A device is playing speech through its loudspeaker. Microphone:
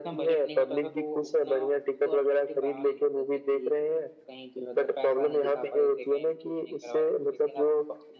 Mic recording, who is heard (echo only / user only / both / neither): both